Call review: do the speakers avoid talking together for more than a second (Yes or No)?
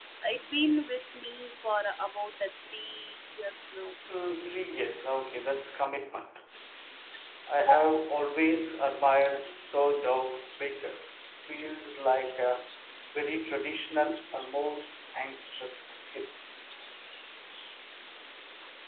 Yes